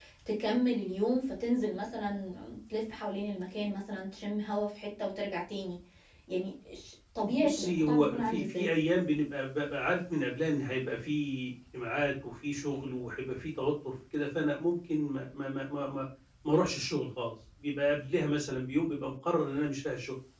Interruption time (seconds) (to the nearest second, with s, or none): 7 s